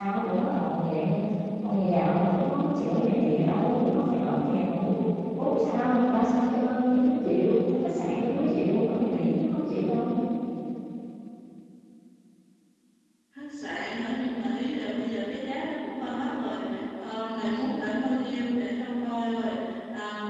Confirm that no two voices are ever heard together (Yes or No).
Yes